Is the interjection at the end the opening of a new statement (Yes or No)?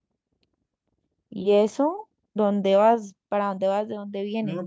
Yes